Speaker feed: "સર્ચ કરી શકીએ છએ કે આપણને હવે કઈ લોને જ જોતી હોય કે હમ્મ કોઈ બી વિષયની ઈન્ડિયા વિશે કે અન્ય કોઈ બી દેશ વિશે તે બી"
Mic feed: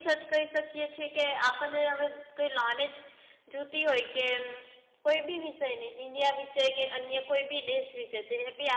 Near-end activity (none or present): none